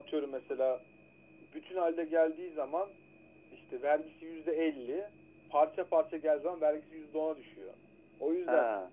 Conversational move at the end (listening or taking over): listening